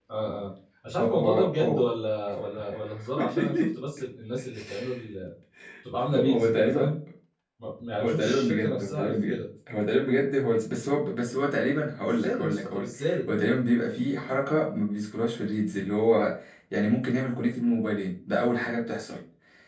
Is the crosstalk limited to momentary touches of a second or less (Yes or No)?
No